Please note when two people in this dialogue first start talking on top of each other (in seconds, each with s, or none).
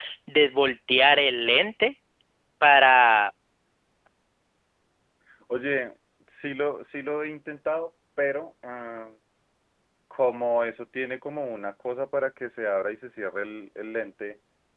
none